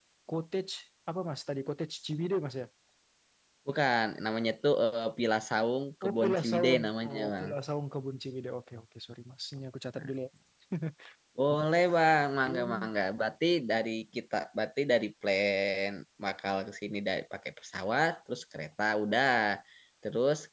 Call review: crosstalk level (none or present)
present